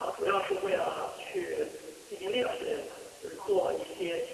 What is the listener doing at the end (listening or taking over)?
listening